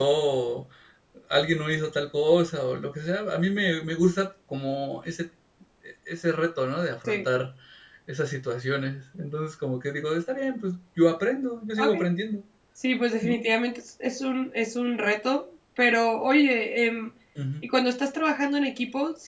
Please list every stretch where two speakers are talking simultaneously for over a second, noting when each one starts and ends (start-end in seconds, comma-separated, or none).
none